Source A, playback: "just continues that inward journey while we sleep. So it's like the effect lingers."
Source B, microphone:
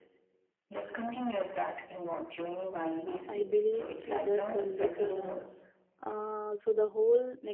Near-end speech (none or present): present